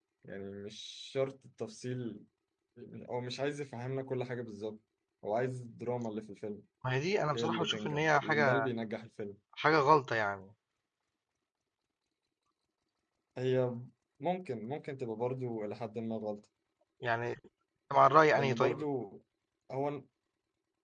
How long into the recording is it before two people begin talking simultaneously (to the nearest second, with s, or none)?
7 s